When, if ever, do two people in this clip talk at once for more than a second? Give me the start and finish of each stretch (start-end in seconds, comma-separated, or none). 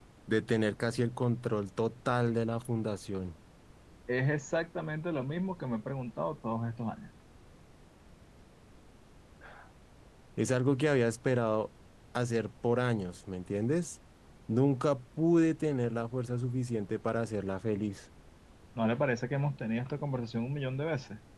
none